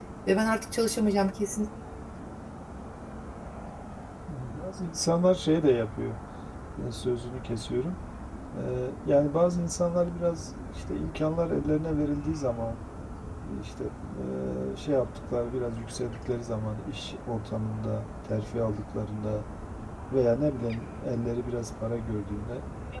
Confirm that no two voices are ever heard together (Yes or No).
Yes